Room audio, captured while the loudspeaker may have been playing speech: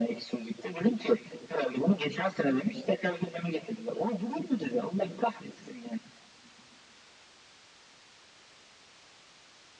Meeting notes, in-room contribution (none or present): none